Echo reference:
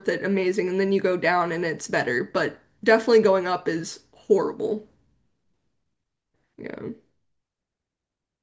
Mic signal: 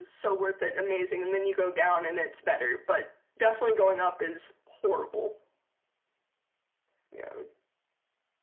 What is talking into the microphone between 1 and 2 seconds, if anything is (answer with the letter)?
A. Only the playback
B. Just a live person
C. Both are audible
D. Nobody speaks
A